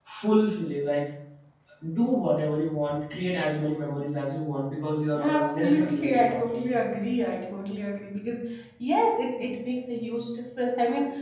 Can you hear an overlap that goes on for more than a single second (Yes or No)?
Yes